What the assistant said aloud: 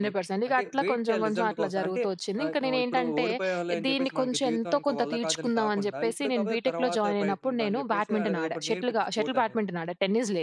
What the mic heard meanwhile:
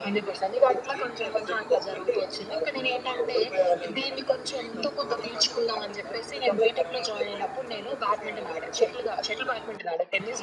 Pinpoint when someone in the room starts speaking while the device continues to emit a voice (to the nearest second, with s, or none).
none